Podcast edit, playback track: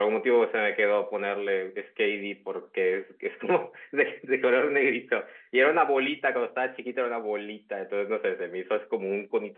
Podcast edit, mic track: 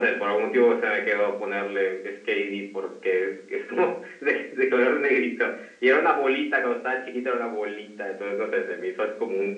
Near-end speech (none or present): none